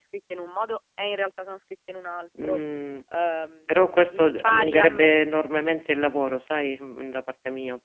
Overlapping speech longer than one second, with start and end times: 3.7-5.1

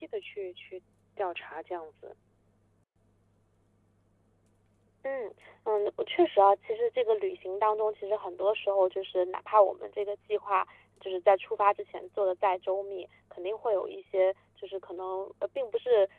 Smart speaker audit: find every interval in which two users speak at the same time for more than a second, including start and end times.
none

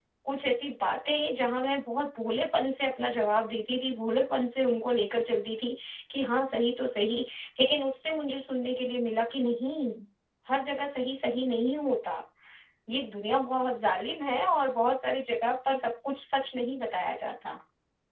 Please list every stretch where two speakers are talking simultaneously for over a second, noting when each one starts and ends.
none

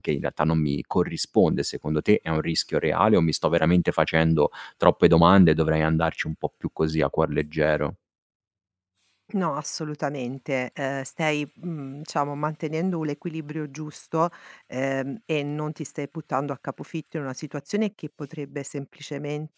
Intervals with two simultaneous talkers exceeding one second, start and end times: none

